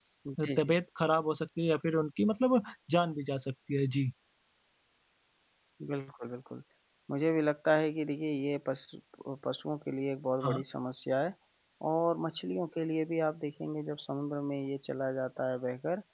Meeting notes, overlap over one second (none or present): none